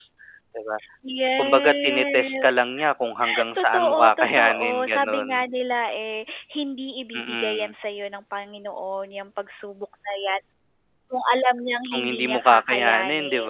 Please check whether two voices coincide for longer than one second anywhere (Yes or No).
Yes